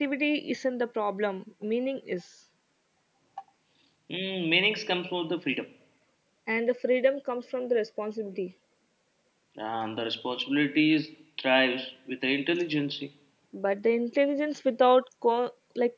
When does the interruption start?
none

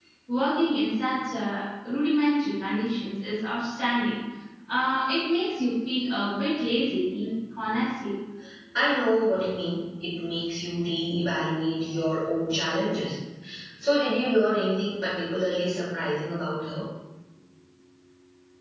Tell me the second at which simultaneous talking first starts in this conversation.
none

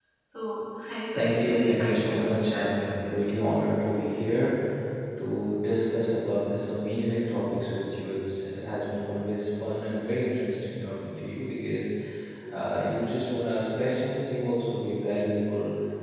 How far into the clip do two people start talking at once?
1.1 s

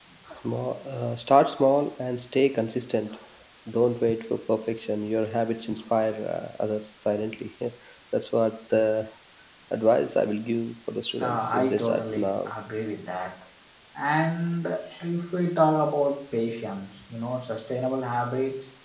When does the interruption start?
11.2 s

